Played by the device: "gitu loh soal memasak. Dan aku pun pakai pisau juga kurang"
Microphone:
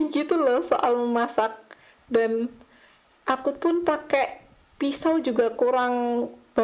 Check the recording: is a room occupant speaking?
No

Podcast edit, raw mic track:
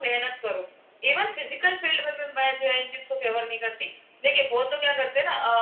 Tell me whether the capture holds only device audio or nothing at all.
Yes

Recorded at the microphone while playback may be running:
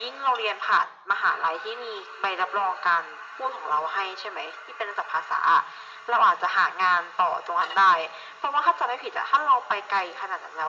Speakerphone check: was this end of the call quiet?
Yes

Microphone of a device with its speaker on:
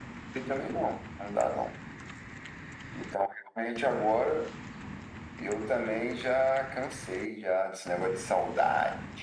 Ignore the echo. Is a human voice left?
No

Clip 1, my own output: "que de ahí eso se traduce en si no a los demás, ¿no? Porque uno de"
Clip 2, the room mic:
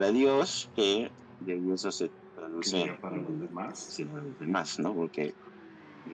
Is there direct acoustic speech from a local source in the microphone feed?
Yes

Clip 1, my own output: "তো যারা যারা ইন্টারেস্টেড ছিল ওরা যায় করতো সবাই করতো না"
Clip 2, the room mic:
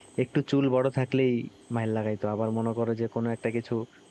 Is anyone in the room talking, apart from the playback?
Yes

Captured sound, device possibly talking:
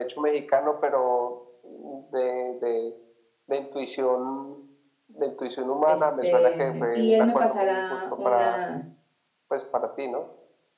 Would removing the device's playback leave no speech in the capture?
No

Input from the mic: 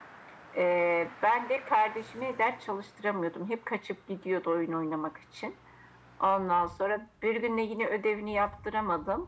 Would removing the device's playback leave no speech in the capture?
Yes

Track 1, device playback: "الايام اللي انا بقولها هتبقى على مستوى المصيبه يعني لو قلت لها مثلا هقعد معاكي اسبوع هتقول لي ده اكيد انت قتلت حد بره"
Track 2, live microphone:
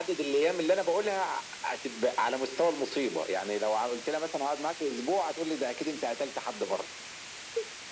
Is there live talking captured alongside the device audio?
No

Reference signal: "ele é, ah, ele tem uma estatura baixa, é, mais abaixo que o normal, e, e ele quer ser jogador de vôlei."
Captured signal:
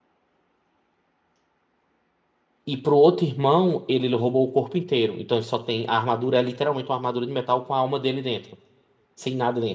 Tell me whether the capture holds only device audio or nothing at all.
No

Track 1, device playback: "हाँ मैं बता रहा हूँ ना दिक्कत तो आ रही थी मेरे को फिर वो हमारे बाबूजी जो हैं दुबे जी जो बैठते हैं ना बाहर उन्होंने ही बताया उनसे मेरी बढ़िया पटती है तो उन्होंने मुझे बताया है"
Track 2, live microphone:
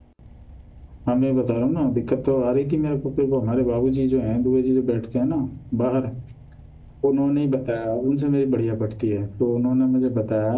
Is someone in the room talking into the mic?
No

